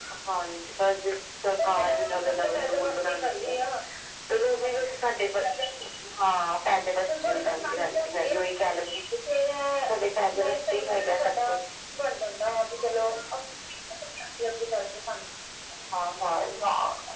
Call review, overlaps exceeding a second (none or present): present